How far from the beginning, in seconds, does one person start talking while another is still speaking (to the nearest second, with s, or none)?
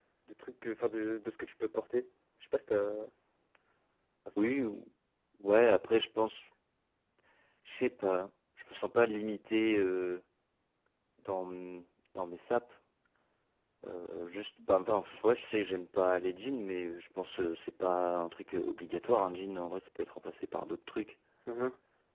none